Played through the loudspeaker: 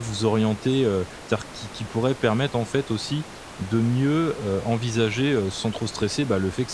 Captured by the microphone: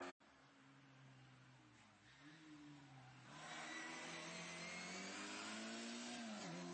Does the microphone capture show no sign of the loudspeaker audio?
Yes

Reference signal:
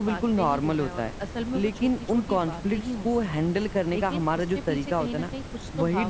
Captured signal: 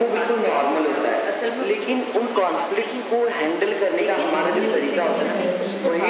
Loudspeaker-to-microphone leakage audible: Yes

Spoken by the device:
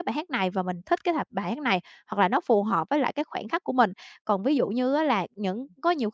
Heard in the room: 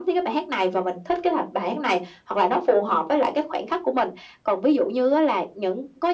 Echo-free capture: No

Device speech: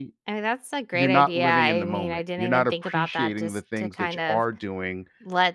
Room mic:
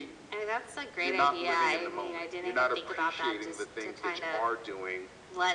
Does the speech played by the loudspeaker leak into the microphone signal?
Yes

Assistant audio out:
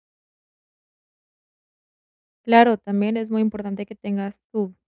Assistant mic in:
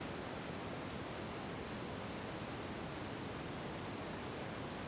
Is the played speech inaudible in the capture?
Yes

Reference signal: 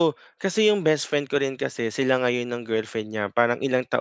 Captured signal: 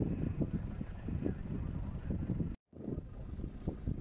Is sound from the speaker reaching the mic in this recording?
No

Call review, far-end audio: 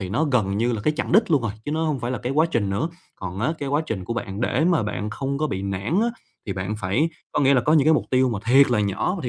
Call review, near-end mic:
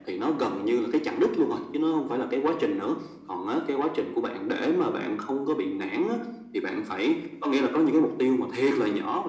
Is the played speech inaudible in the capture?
No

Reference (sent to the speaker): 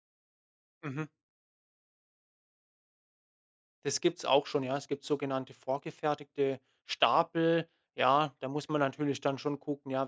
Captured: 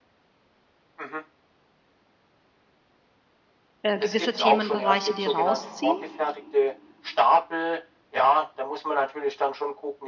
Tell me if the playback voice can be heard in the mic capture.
Yes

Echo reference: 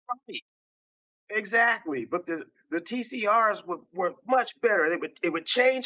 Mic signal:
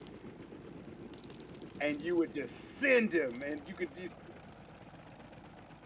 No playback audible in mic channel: Yes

